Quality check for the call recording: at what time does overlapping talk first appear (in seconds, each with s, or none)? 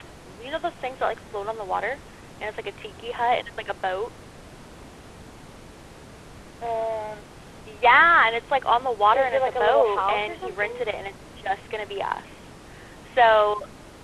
9.1 s